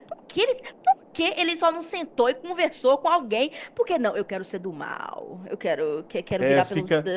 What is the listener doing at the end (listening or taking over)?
taking over